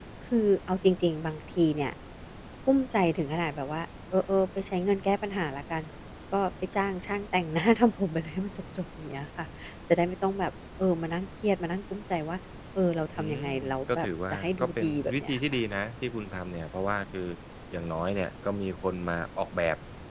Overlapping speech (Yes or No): Yes